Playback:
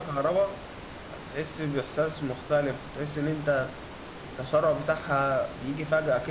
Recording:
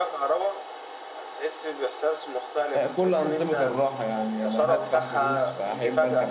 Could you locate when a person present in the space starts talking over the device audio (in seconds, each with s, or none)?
2.7 s